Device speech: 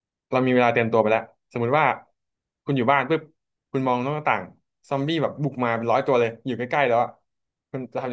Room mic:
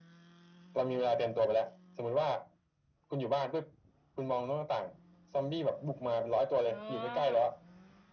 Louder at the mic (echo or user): echo